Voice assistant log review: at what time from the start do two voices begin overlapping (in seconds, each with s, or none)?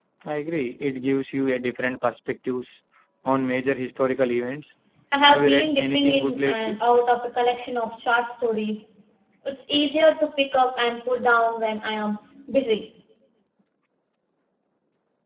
5.2 s